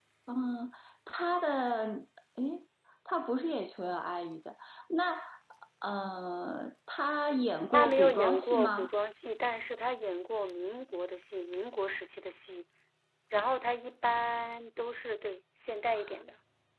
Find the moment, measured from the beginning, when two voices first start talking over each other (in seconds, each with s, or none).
7.7 s